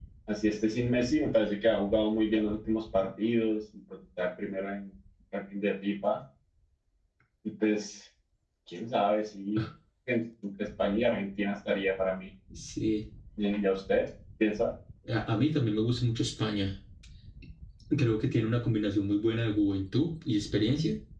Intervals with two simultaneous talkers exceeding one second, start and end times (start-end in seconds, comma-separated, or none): none